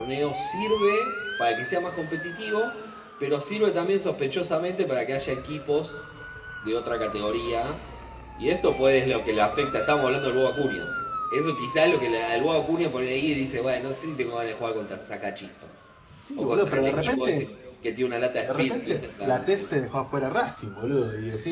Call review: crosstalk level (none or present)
present